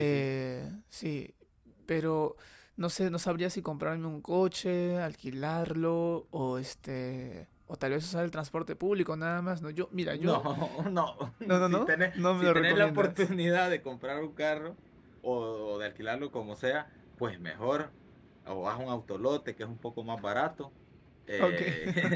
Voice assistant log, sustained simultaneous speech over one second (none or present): present